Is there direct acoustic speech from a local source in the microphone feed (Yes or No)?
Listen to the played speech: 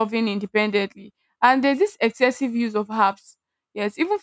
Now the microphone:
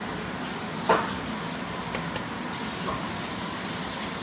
No